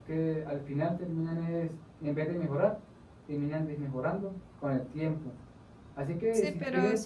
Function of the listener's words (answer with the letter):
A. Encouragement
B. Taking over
B